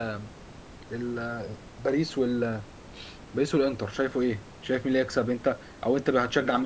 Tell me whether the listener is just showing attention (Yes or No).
No